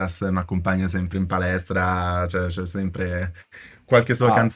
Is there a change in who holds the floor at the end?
No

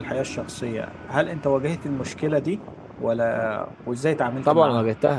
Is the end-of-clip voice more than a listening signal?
Yes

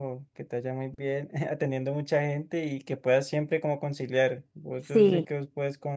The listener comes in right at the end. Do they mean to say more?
No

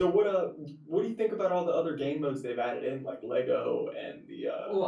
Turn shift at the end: Yes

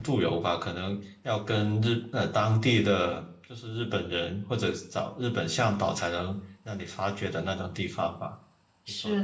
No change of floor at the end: No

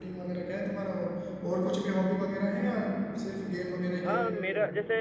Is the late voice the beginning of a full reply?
Yes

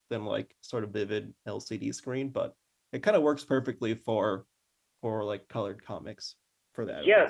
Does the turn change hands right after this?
Yes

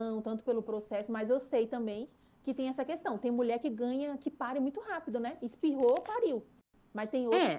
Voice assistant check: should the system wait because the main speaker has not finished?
No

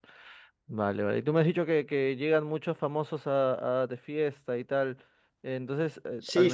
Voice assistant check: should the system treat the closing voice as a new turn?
Yes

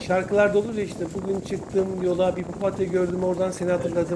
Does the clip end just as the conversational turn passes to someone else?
No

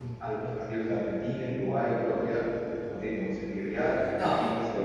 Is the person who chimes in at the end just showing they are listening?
Yes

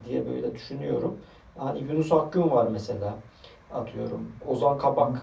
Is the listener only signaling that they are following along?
Yes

